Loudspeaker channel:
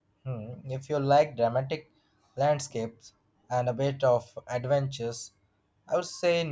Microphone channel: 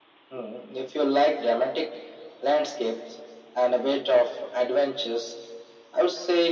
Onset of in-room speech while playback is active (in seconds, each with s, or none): none